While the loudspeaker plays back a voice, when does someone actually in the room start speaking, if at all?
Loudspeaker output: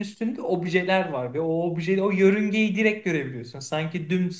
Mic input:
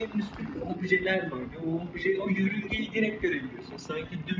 none

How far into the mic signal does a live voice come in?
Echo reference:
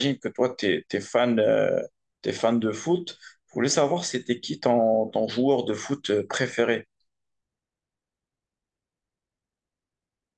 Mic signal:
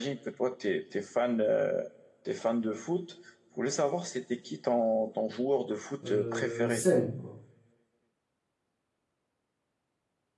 6.0 s

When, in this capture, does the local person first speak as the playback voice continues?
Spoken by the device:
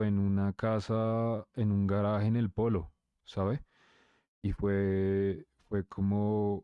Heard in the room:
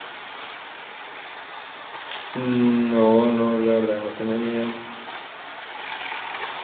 2.4 s

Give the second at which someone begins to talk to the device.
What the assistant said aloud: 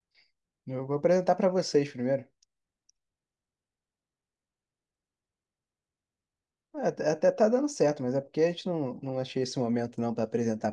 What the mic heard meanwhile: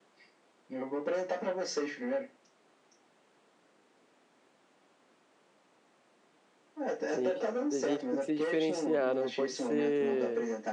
7.1 s

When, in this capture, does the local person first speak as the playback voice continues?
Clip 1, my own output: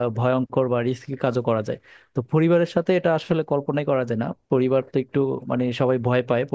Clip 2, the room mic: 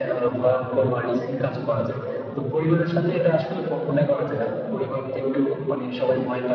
none

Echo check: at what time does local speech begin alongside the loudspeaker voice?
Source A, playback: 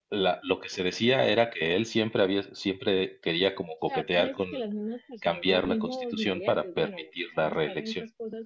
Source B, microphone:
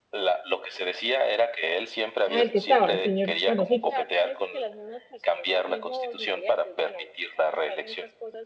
2.3 s

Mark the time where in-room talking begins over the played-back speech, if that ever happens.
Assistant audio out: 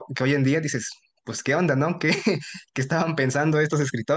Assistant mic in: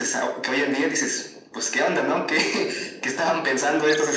none

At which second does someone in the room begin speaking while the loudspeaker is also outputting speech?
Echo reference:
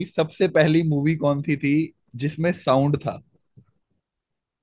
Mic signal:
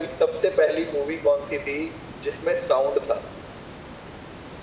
none

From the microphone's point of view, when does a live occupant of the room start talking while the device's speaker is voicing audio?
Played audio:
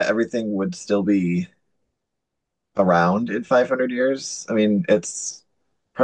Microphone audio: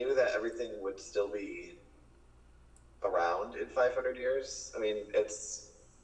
none

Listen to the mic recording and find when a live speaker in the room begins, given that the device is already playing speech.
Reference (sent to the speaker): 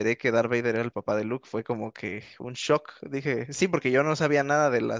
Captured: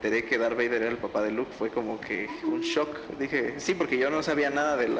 none

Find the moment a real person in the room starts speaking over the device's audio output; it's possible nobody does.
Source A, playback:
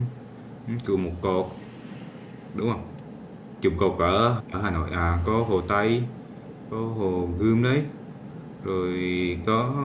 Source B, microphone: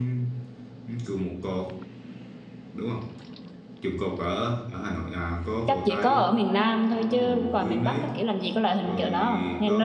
5.7 s

